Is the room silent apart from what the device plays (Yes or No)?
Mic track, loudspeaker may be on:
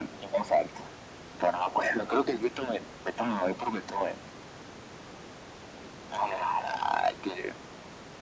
Yes